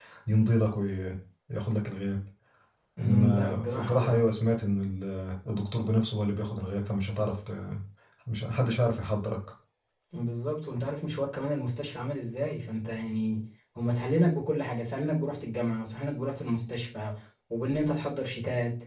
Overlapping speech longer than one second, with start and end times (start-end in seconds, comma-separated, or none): 3.0-4.2